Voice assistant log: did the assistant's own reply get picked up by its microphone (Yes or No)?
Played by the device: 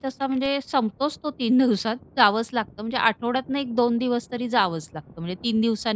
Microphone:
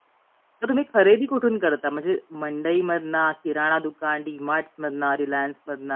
No